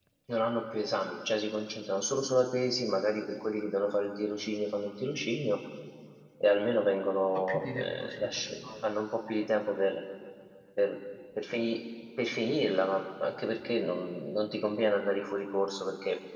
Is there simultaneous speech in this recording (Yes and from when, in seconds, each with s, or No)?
Yes, from 7.3 s